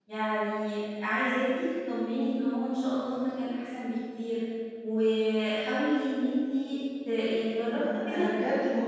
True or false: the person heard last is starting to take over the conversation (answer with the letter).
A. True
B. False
A